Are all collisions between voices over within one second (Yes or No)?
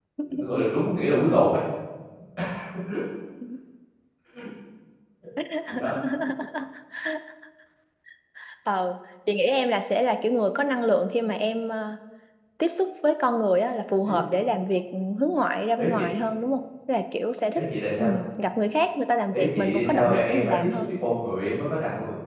No